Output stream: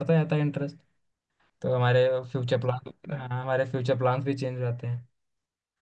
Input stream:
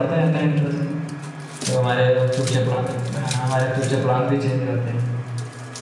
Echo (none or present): present